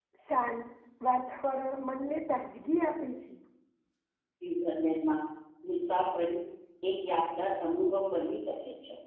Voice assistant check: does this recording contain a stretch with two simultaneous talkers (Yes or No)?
No